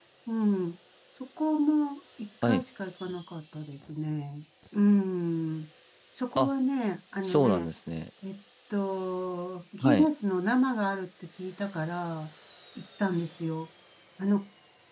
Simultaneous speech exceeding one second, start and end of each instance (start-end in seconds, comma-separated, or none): none